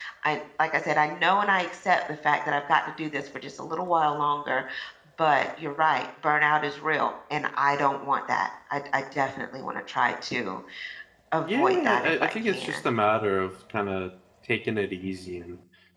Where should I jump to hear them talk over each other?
11.4 s

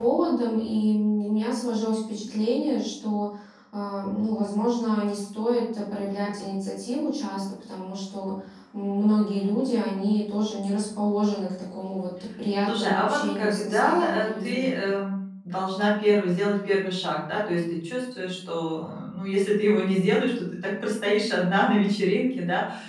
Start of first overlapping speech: 12.7 s

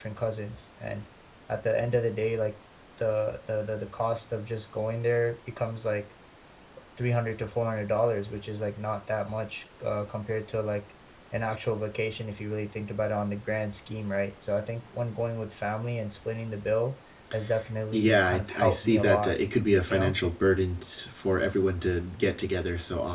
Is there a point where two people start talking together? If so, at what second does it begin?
17.9 s

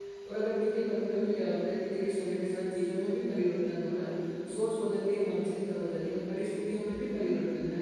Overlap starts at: none

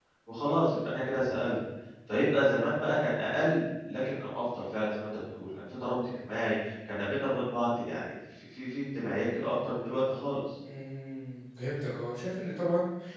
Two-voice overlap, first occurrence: none

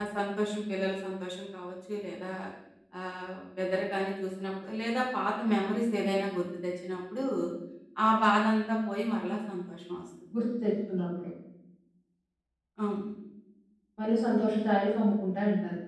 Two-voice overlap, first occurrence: none

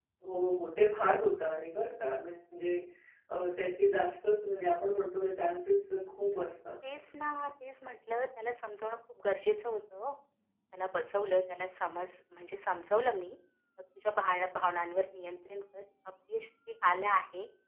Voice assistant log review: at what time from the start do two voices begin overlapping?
none

